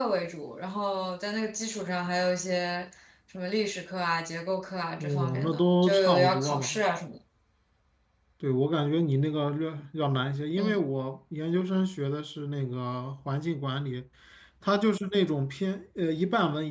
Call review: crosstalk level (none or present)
present